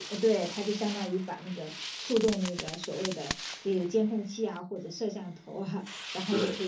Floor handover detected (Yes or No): No